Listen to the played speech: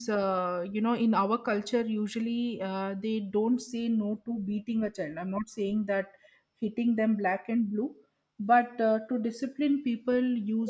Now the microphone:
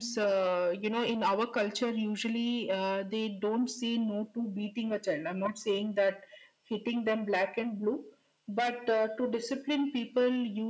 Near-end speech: none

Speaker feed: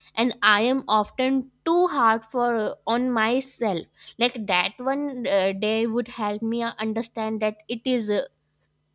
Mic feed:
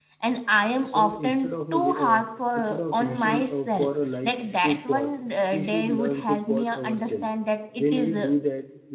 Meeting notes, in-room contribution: present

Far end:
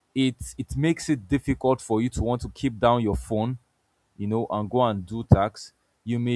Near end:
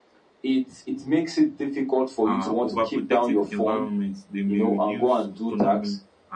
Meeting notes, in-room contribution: present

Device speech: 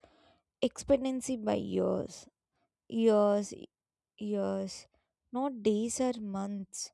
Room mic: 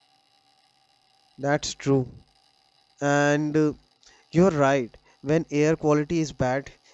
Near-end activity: present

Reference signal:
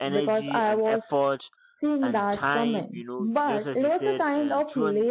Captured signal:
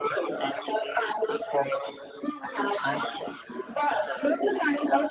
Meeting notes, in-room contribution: none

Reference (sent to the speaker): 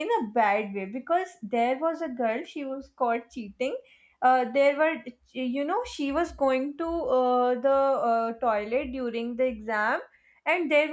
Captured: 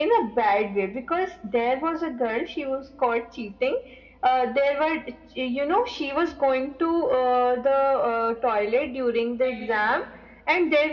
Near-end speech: present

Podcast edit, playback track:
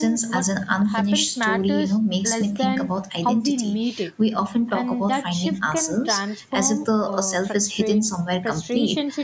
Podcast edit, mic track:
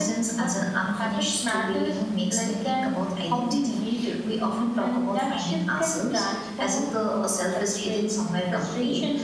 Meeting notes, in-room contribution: none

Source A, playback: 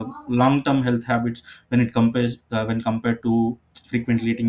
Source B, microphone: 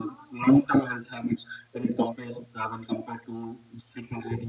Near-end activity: none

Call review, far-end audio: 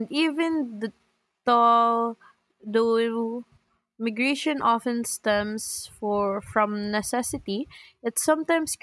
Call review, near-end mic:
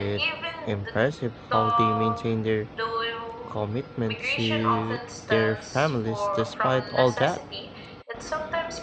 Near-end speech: present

